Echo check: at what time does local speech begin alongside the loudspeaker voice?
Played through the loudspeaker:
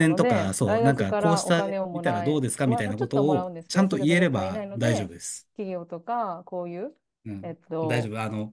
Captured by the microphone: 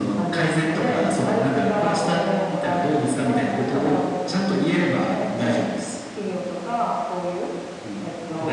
none

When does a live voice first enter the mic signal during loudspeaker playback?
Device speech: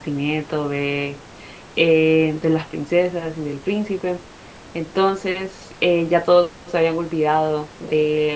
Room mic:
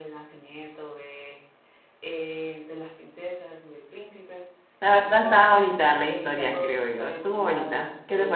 4.8 s

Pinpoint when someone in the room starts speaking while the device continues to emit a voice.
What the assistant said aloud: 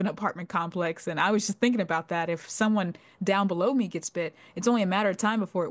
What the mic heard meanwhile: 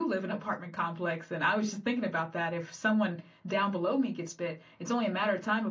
none

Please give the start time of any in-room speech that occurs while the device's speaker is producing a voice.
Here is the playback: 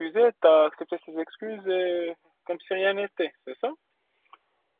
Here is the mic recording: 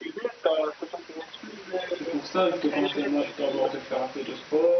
2.0 s

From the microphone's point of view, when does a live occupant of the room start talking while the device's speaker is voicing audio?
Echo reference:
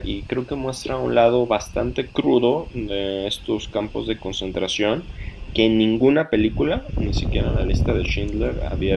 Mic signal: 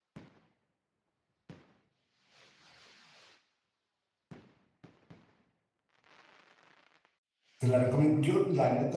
7.6 s

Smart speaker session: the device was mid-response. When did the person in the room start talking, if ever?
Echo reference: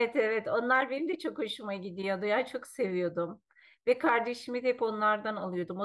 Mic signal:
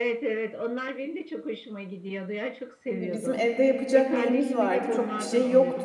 2.8 s

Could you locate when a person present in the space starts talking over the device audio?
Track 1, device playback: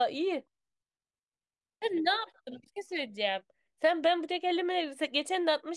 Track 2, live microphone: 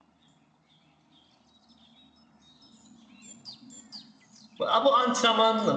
4.6 s

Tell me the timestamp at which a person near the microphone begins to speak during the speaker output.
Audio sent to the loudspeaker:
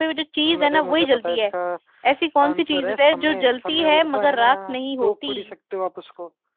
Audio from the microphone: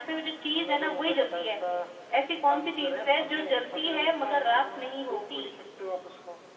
none

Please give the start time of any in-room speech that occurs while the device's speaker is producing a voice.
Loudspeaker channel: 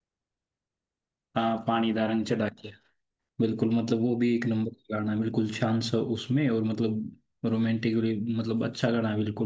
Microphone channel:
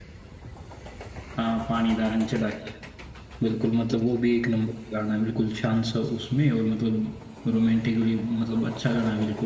none

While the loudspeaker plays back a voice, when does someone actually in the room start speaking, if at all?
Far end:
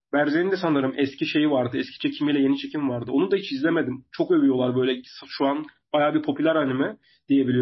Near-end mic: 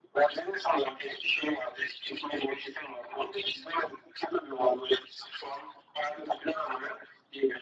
none

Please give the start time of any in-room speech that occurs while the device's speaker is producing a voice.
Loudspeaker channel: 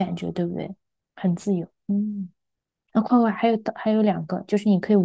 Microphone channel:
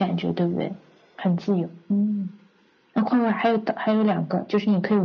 none

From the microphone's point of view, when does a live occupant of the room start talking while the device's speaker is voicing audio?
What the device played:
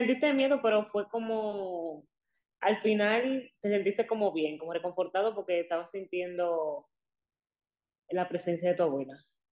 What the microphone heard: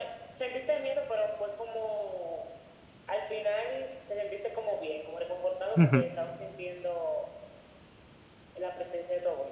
5.8 s

